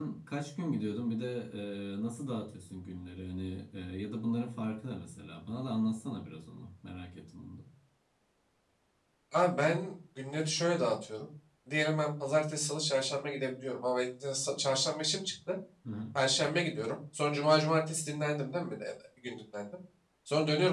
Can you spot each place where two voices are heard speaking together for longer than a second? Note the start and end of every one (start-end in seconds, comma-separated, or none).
none